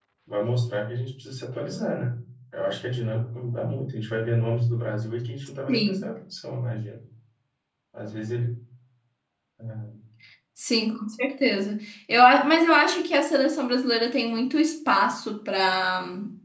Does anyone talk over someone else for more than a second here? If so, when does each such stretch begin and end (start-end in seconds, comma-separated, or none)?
none